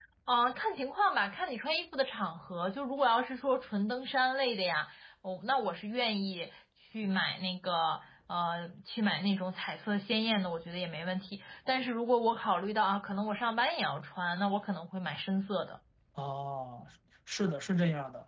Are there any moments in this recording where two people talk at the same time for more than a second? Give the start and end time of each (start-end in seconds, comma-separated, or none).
none